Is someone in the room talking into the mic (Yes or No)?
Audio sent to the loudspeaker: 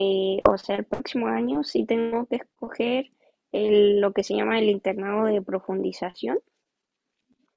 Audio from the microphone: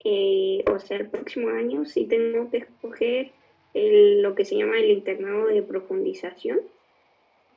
No